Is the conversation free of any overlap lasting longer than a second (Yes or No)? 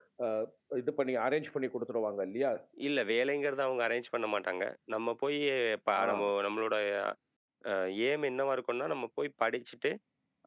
Yes